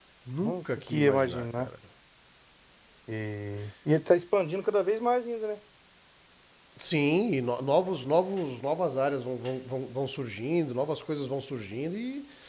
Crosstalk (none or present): present